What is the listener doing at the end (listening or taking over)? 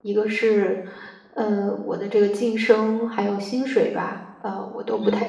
listening